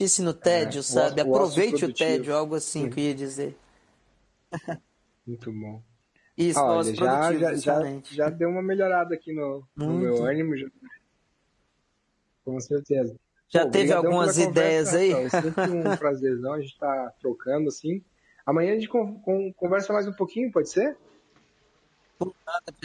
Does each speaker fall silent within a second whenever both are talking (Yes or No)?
No